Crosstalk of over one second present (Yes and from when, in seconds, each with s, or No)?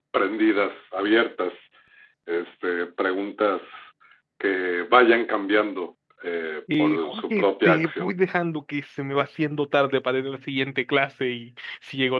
Yes, from 6.7 s